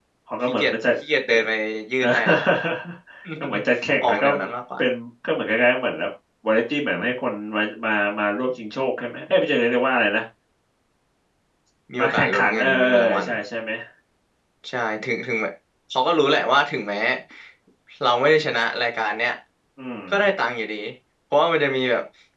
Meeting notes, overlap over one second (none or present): present